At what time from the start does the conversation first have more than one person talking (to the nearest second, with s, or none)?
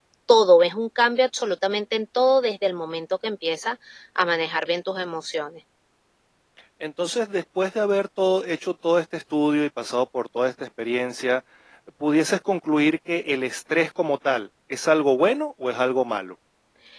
none